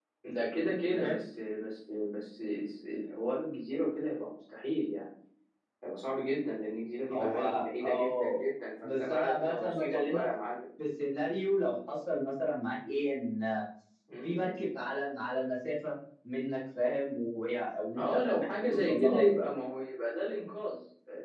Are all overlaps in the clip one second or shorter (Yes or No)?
No